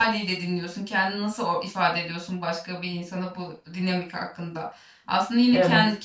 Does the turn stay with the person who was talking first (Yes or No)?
Yes